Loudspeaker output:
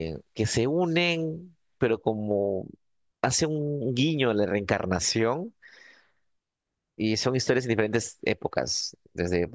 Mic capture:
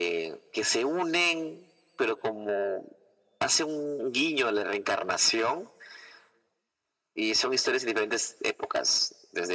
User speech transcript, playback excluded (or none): none